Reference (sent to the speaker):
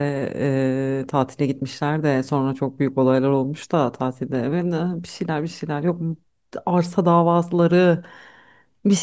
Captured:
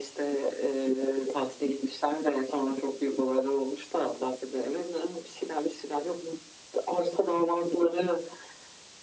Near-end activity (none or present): none